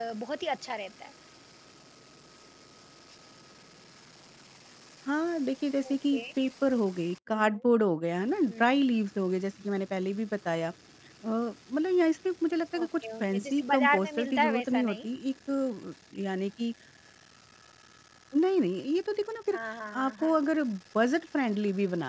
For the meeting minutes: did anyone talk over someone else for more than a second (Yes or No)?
Yes